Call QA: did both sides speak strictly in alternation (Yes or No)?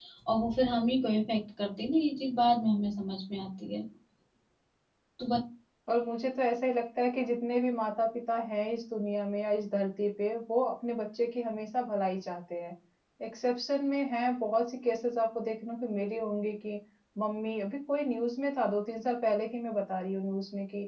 Yes